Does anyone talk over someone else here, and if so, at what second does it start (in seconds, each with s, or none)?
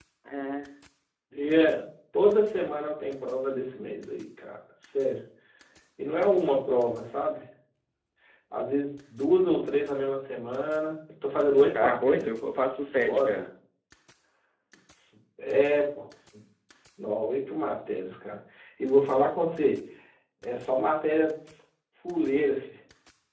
11.7 s